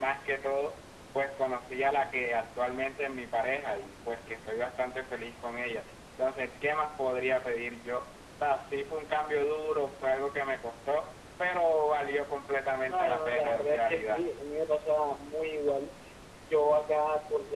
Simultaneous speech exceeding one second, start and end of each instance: 12.9-14.2

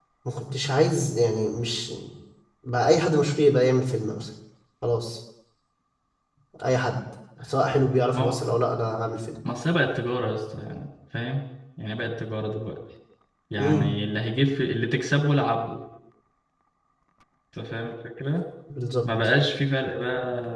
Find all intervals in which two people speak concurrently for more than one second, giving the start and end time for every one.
none

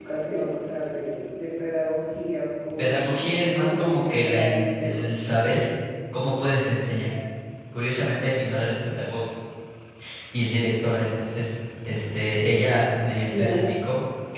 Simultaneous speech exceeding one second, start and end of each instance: 2.8-5.0

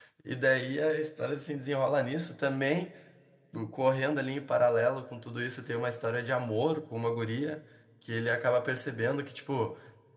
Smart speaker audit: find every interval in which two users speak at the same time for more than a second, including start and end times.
none

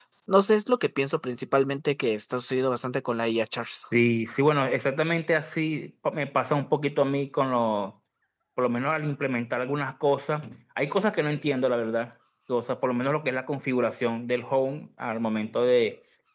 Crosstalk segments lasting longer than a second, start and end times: none

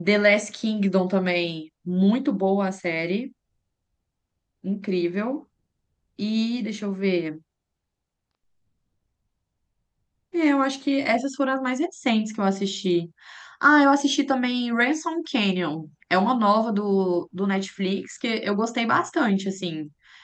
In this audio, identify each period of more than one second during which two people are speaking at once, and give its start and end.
none

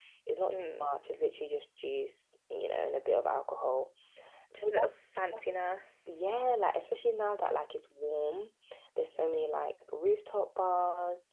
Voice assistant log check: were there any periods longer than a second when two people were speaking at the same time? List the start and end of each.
none

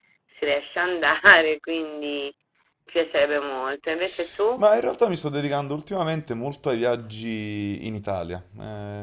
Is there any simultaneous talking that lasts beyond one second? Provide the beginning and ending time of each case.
none

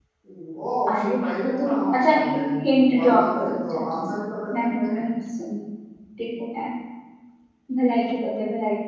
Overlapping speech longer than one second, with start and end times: 0.9-2.5, 2.9-4.1

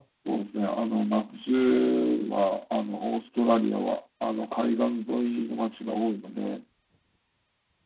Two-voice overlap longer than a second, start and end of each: none

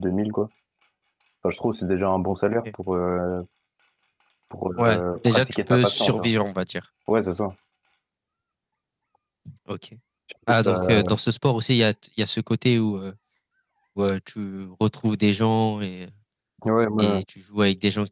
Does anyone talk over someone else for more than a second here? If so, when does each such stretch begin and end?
4.8-6.3

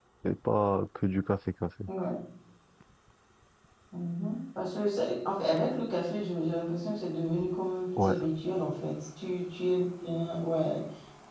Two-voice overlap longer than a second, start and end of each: none

